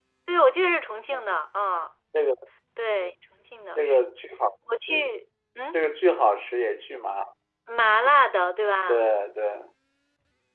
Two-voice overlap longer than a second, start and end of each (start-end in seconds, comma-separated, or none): none